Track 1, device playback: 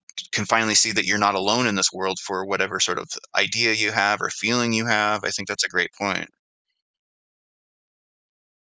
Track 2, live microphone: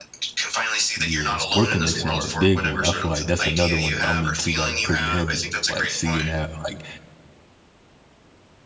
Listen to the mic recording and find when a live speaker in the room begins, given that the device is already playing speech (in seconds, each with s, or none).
1.0 s